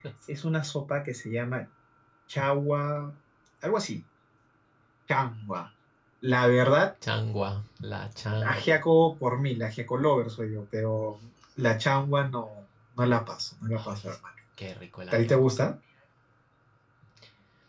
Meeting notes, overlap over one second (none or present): none